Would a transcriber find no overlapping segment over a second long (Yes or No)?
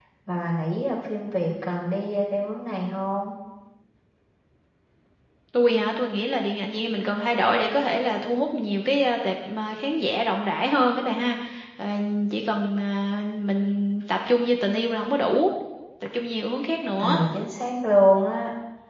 Yes